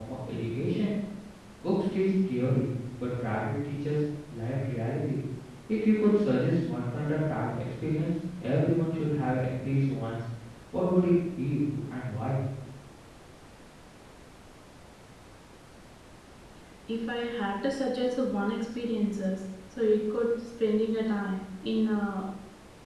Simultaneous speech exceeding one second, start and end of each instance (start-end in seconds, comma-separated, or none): none